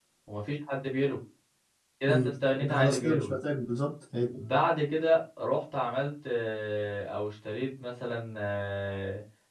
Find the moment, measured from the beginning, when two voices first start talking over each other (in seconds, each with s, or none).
2.1 s